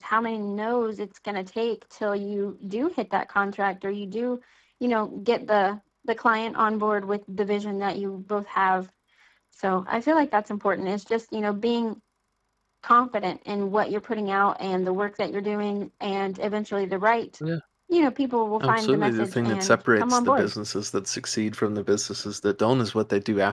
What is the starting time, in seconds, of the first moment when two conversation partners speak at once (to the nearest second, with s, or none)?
19 s